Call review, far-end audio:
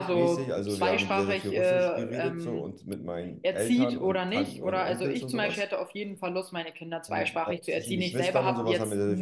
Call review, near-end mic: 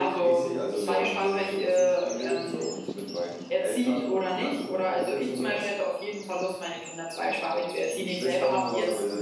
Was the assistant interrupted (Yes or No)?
No